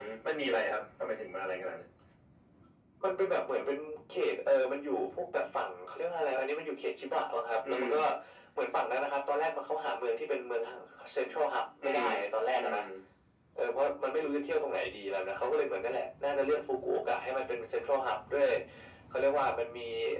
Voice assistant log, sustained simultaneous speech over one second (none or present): none